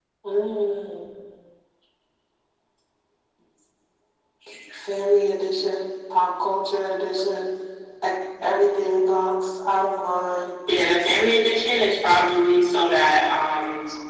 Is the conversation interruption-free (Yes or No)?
Yes